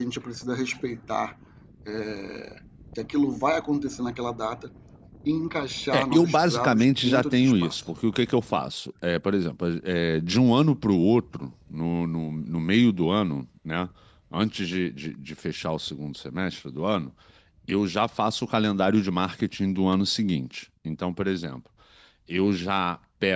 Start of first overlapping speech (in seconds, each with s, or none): 5.9 s